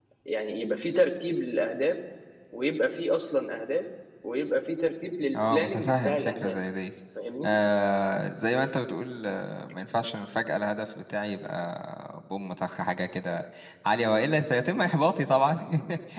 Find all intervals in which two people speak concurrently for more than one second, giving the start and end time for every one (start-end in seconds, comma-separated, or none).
5.3-6.6